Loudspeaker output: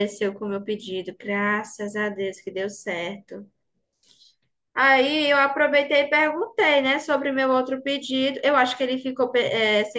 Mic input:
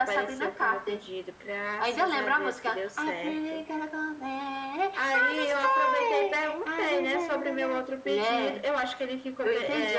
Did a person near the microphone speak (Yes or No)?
Yes